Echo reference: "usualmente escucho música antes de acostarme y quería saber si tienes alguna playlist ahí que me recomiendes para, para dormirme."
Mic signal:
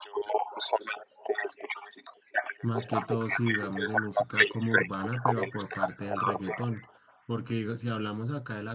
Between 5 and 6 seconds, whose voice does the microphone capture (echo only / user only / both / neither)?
both